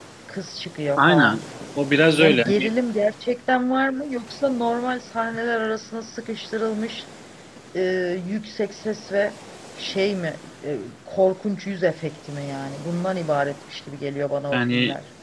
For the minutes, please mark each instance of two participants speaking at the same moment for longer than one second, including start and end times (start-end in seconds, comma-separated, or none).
none